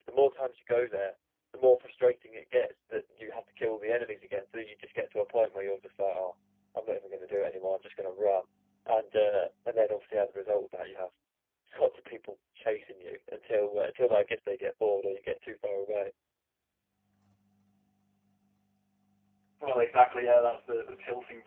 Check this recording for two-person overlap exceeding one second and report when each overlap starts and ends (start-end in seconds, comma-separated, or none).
none